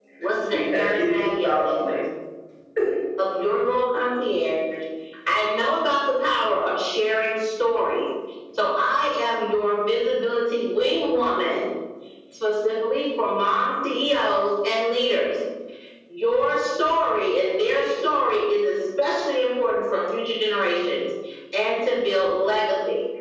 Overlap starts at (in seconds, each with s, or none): 0.5 s